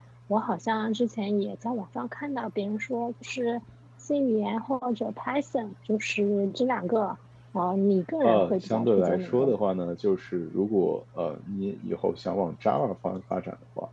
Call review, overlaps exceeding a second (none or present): present